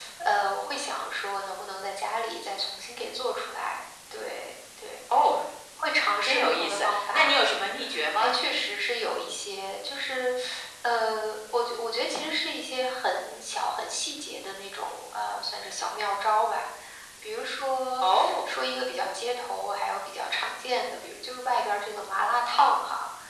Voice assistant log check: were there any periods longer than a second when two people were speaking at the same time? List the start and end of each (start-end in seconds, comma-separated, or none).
6.2-7.5